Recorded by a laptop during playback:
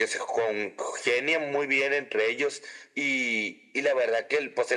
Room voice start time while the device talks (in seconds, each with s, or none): none